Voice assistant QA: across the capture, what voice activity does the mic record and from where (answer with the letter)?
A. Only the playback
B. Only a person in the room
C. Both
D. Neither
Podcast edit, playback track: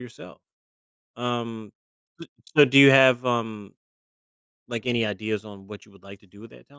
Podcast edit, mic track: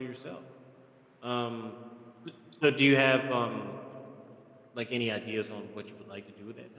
A